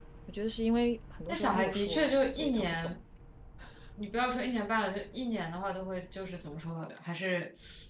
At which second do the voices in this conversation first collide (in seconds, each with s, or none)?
1.3 s